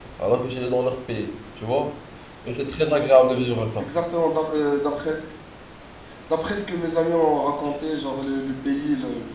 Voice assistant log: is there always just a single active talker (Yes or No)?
Yes